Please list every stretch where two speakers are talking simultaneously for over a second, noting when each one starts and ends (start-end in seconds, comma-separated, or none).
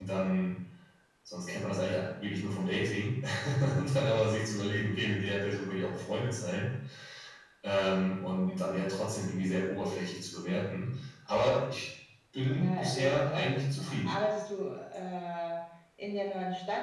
12.5-14.1